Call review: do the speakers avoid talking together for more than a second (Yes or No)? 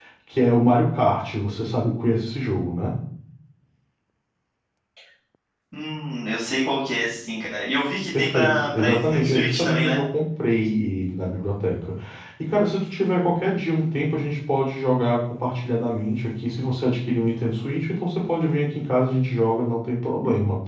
No